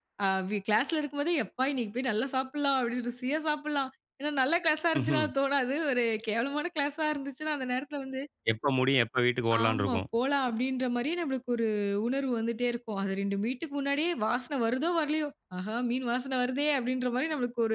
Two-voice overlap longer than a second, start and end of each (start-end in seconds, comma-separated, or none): none